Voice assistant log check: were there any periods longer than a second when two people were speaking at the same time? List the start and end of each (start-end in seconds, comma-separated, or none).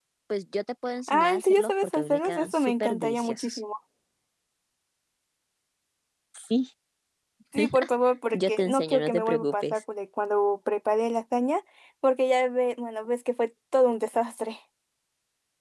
1.1-3.6, 8.3-9.8